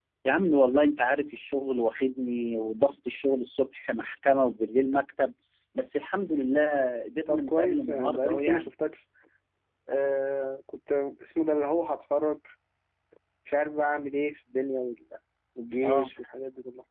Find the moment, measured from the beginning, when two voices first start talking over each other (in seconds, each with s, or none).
7.3 s